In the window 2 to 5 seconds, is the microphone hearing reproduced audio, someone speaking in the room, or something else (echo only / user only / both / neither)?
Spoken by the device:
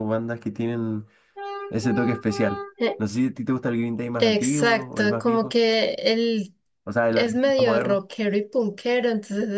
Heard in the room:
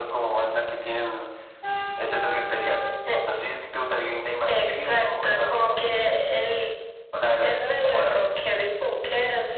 echo only